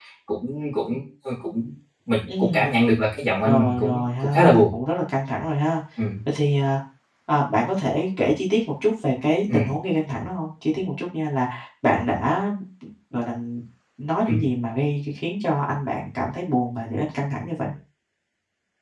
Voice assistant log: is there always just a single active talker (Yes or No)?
No